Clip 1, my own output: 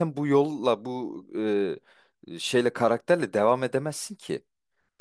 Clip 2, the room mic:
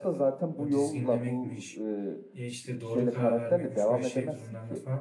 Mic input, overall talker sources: both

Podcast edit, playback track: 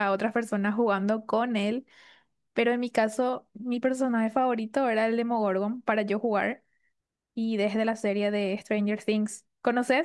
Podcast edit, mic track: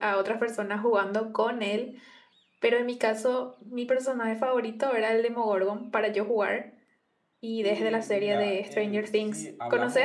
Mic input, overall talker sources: both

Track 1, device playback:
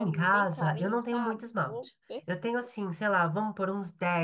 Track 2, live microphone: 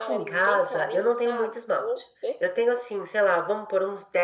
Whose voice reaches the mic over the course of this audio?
echo only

